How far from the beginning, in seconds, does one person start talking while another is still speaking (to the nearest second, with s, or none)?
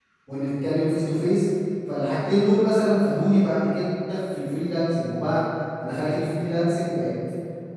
none